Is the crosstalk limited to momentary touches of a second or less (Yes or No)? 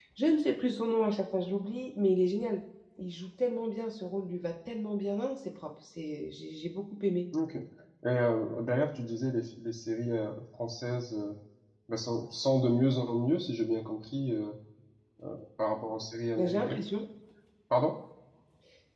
Yes